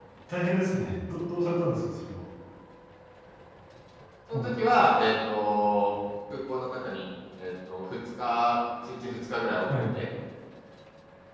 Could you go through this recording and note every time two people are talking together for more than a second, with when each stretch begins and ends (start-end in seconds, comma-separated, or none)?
none